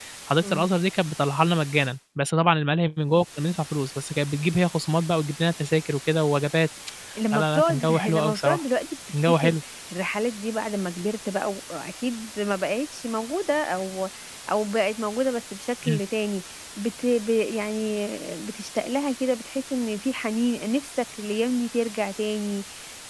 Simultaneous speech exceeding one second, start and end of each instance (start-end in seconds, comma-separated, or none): 7.3-8.6